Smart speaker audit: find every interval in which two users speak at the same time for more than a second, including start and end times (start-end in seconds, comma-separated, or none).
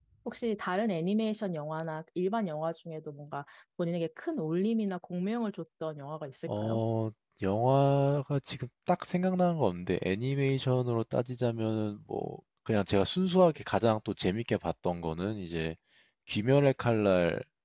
none